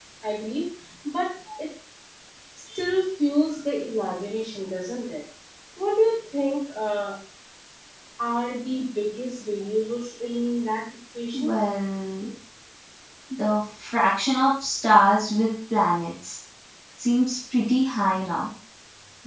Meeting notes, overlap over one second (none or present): none